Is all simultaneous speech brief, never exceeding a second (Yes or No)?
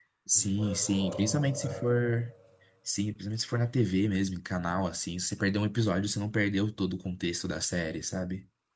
No